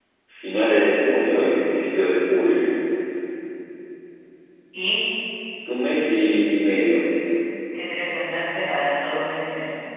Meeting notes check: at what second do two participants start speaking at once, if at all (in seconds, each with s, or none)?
none